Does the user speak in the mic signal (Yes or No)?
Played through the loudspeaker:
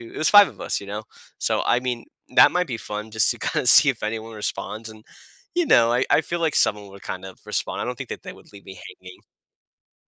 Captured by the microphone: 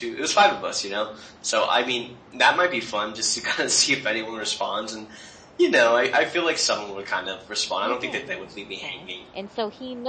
Yes